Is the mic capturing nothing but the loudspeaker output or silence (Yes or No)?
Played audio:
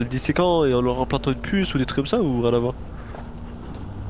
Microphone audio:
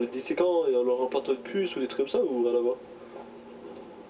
Yes